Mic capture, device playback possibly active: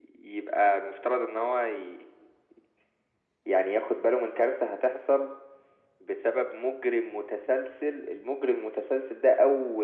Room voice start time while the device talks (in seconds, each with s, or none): none